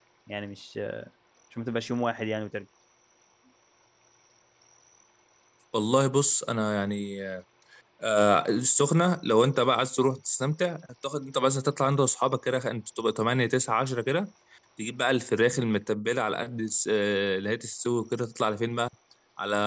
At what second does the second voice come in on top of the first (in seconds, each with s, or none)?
none